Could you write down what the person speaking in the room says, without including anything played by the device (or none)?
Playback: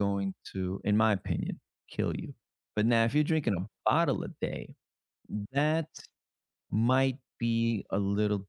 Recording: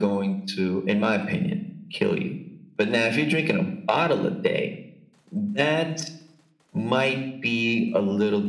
none